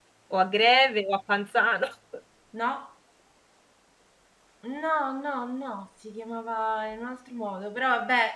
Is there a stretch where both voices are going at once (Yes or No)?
No